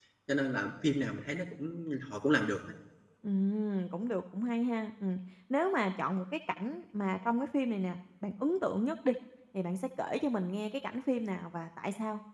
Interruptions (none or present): none